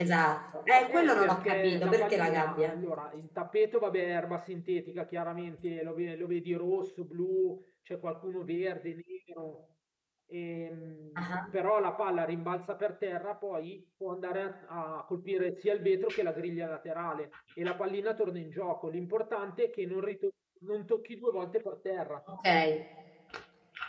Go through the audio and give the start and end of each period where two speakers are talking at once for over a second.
0.9-2.8

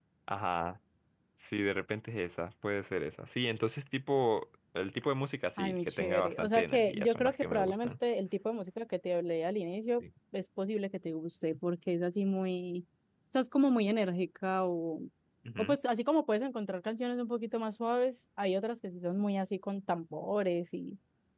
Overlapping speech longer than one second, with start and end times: 5.6-7.9

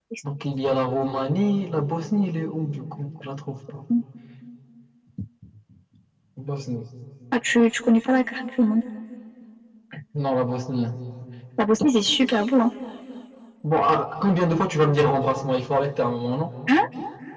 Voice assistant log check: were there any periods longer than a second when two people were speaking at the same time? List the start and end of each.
none

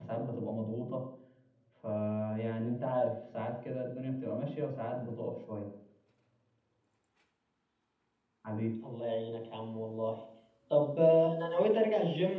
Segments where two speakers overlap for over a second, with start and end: none

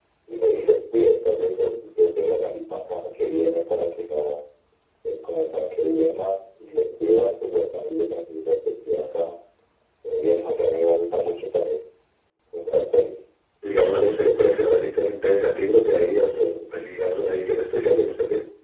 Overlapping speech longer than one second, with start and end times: none

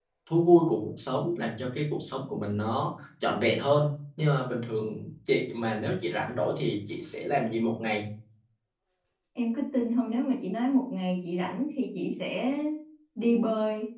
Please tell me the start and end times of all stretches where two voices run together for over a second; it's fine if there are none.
none

